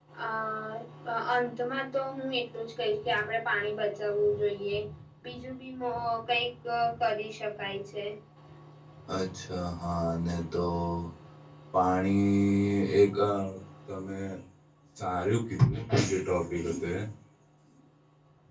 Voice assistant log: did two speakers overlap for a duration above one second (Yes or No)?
No